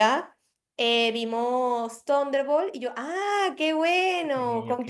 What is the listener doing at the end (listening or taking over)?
listening